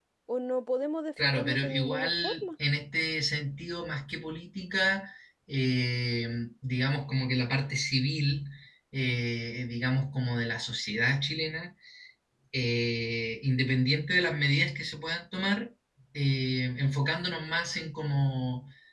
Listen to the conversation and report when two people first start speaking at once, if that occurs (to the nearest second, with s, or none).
1 s